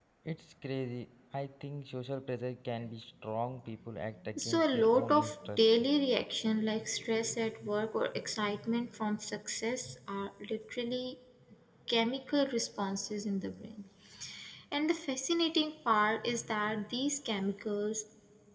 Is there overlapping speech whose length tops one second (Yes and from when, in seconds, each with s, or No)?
Yes, from 4.4 s